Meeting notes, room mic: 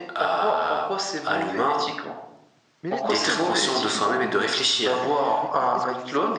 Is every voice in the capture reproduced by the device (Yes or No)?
No